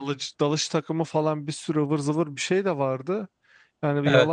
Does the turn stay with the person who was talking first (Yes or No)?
Yes